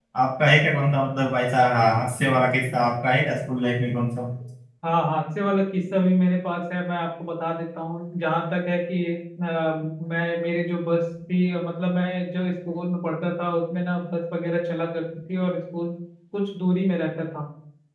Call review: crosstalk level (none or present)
none